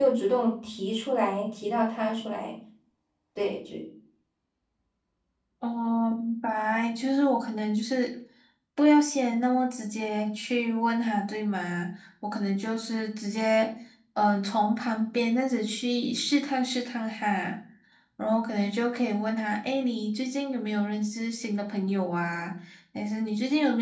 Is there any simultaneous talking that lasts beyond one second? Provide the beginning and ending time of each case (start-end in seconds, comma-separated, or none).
none